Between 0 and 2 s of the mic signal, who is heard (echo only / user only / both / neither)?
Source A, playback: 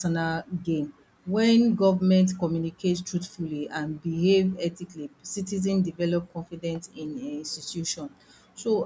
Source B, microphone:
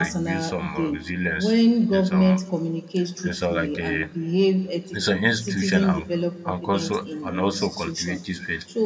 both